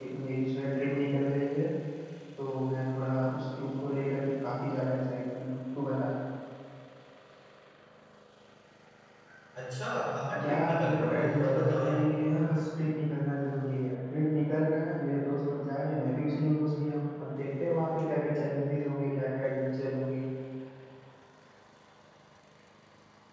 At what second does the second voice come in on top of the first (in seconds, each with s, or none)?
10.4 s